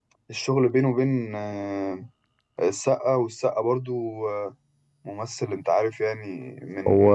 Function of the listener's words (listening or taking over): taking over